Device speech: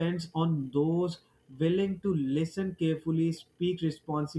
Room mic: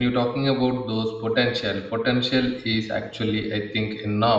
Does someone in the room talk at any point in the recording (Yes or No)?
Yes